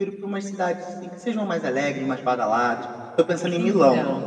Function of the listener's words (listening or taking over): listening